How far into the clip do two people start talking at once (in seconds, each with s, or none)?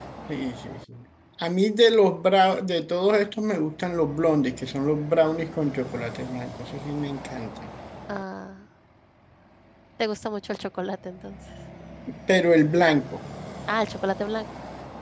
none